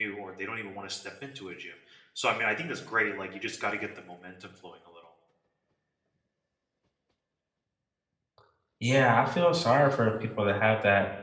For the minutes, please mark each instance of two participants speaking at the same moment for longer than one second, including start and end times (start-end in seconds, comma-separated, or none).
none